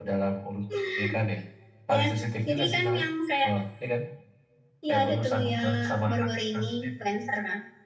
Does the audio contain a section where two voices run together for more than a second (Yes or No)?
Yes